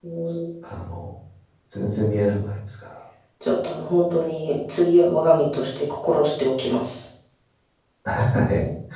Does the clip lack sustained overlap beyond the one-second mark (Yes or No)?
Yes